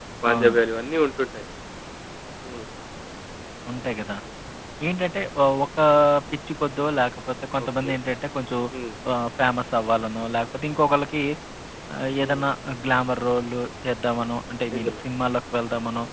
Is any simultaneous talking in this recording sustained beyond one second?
No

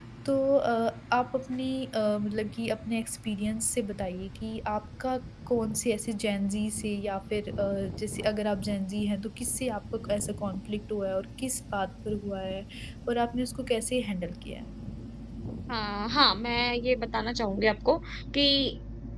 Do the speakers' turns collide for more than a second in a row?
No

